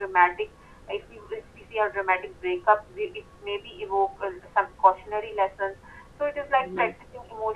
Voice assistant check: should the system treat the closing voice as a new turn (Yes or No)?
No